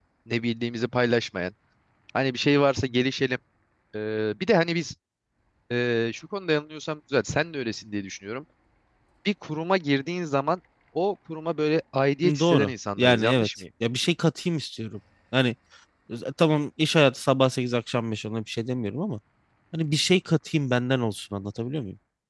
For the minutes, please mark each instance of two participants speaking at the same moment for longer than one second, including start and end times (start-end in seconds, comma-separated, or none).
12.2-13.5